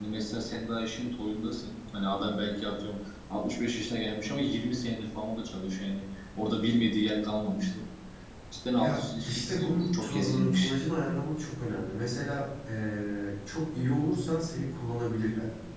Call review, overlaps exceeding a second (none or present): present